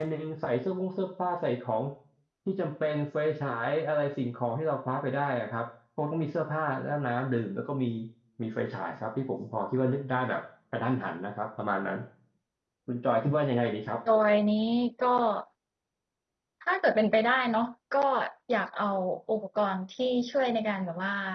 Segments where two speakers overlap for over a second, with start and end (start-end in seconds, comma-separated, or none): none